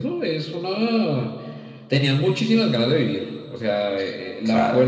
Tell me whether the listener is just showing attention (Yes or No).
Yes